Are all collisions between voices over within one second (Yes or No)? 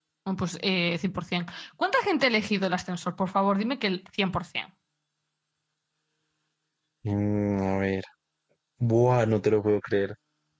Yes